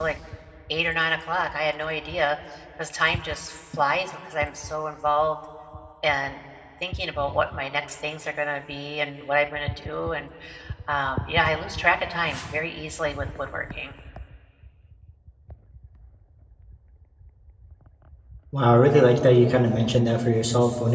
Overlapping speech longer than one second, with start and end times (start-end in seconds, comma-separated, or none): none